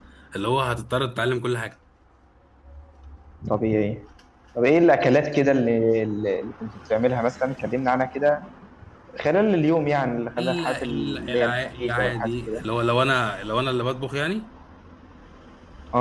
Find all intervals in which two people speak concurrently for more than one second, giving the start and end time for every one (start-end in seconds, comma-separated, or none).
10.4-12.6